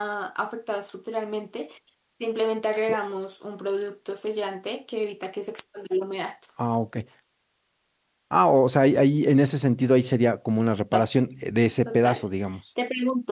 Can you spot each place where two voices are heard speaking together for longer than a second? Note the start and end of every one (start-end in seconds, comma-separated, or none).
none